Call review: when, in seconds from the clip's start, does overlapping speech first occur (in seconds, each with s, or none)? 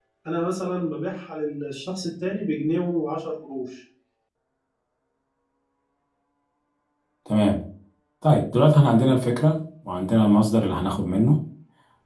none